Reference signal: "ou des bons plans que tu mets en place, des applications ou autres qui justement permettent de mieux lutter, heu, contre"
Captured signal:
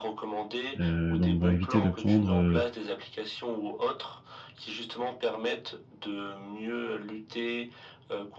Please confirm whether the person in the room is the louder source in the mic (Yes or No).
Yes